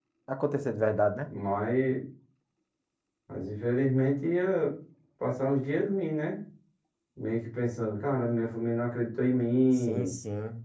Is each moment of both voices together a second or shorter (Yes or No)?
Yes